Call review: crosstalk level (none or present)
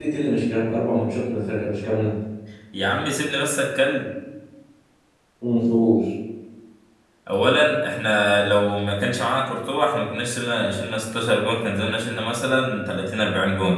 none